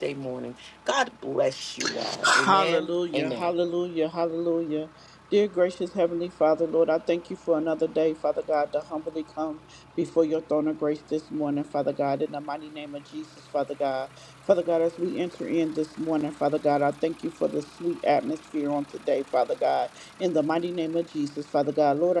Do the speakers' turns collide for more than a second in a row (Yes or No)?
Yes